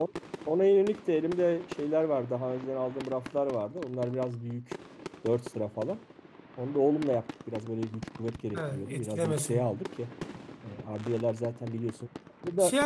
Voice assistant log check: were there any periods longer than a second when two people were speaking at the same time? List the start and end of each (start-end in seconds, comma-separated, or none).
8.5-9.8